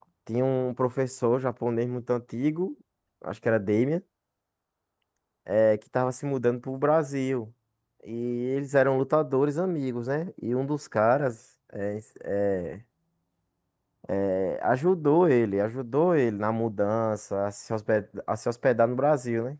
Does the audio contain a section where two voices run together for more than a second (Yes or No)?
No